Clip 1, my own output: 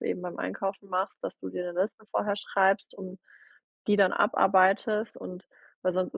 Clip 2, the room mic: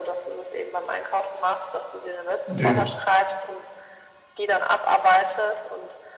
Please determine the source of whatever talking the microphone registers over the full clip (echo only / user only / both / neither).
both